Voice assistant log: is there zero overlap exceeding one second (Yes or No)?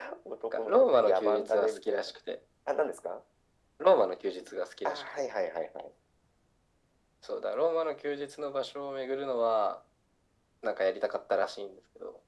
No